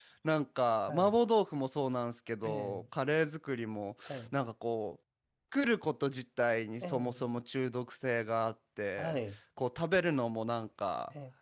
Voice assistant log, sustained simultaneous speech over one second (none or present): none